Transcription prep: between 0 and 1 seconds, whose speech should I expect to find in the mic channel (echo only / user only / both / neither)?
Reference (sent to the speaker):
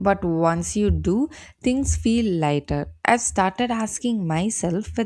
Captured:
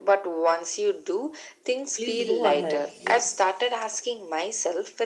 echo only